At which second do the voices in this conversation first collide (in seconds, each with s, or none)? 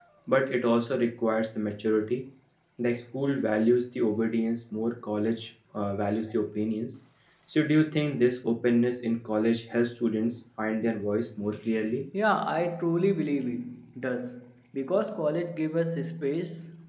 none